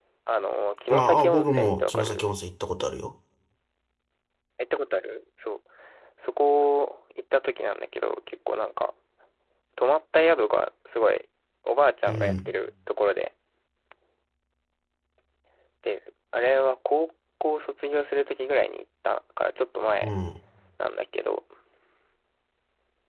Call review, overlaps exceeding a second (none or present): present